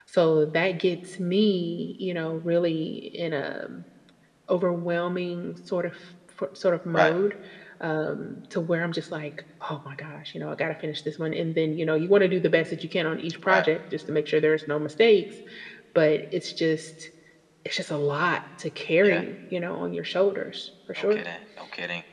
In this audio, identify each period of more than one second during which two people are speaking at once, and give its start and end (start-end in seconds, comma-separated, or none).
none